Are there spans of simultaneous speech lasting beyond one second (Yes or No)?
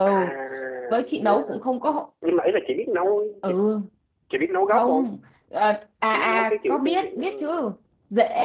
Yes